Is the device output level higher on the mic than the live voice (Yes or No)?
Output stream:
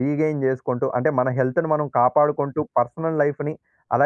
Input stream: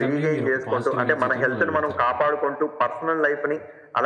Yes